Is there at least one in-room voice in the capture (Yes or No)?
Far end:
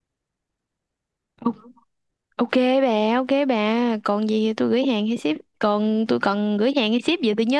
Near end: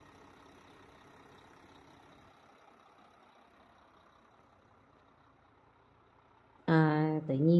Yes